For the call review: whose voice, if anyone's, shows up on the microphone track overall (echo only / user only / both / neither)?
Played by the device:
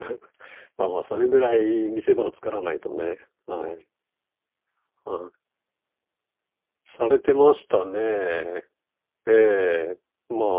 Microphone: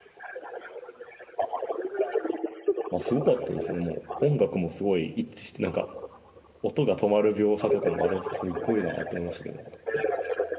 both